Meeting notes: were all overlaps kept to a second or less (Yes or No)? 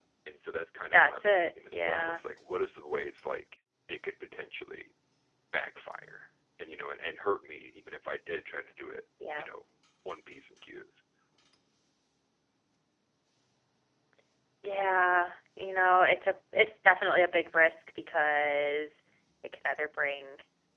No